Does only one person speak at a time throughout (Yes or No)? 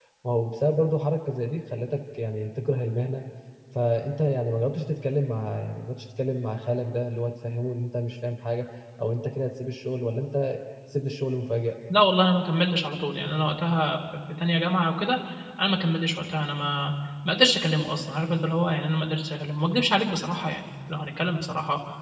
Yes